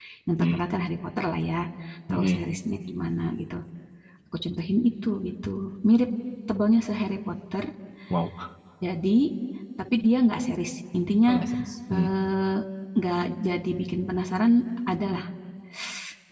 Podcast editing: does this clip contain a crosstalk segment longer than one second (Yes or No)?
No